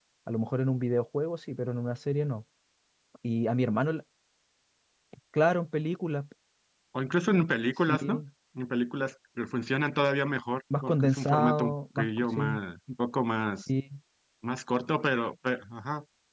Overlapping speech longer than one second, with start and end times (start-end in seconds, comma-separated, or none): 10.8-12.6